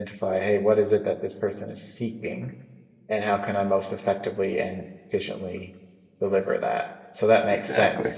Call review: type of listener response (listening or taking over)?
listening